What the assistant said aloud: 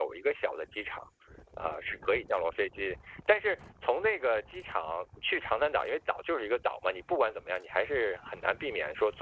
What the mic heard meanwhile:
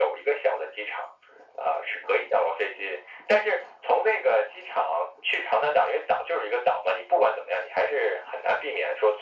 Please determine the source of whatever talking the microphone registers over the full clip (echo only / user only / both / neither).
echo only